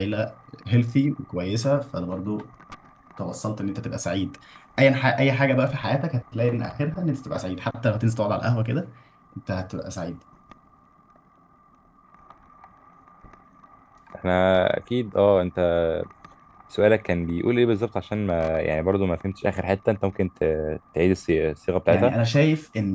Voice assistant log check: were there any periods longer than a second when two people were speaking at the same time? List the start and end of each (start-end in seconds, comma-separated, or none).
none